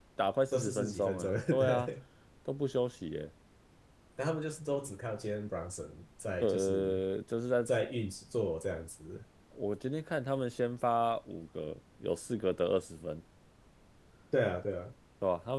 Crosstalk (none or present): present